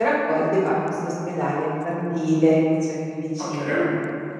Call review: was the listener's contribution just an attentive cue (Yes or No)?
No